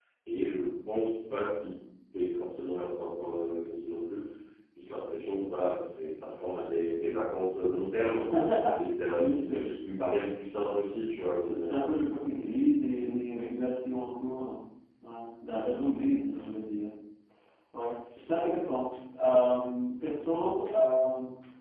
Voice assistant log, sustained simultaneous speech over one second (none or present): none